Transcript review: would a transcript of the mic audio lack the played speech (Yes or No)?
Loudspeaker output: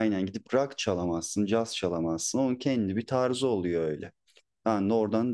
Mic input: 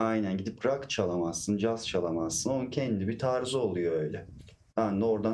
No